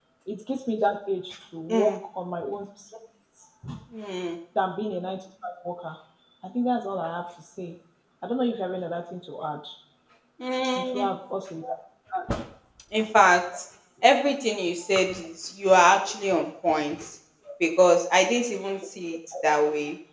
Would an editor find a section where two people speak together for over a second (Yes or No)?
No